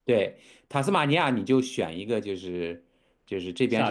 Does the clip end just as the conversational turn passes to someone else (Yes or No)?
No